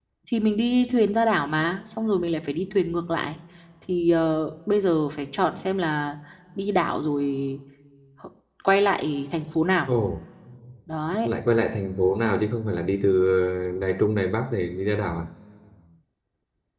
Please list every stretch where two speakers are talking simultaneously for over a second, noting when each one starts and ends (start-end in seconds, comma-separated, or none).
none